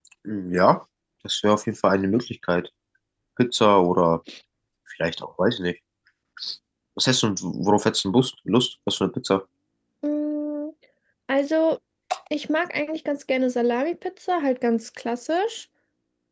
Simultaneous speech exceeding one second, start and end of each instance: none

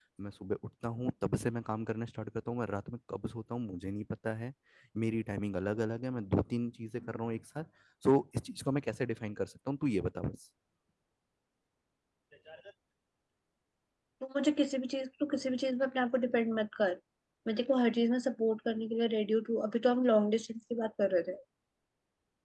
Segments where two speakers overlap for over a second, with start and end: none

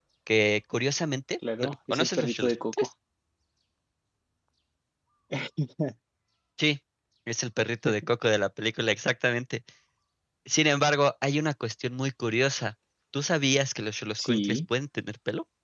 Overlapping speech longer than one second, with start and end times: 1.6-2.9

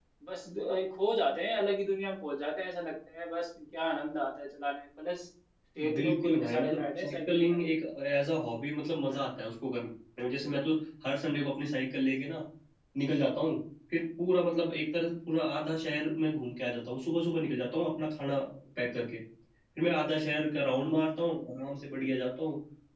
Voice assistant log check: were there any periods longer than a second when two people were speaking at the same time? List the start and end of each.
5.9-7.6

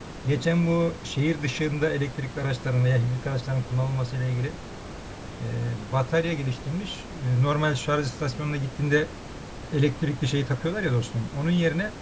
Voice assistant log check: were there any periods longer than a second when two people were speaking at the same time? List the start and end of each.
none

